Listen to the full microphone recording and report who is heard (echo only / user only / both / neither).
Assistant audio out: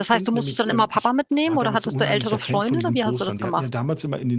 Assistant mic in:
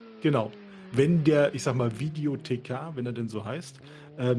user only